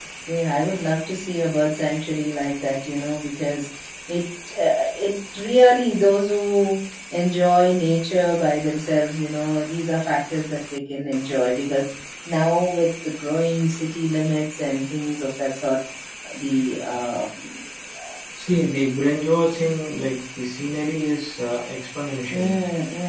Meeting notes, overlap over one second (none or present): none